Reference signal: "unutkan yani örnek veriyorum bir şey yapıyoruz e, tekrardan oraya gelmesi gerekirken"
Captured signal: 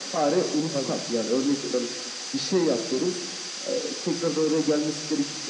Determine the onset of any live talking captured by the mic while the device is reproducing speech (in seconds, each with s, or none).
0.7 s